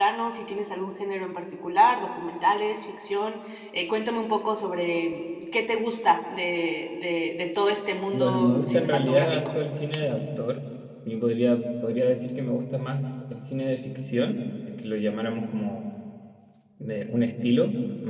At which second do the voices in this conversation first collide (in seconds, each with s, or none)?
8.1 s